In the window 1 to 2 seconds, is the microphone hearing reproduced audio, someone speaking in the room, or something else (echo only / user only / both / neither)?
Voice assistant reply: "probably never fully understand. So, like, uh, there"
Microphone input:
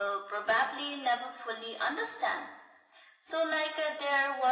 echo only